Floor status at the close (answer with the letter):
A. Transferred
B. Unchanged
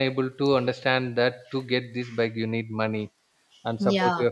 B